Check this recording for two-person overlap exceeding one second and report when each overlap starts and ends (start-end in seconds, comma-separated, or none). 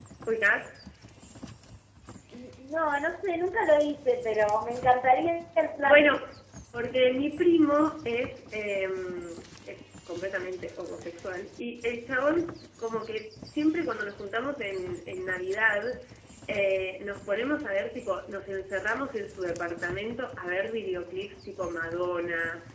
none